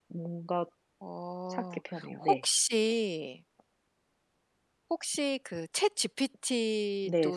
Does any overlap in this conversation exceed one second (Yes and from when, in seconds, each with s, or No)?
No